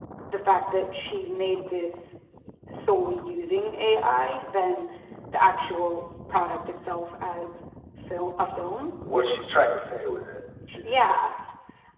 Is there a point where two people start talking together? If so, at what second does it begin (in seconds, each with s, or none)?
none